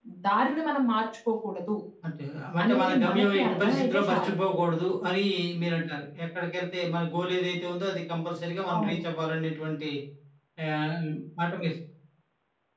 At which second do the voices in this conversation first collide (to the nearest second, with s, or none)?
3 s